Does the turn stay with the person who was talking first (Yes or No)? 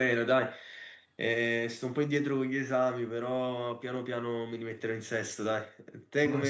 Yes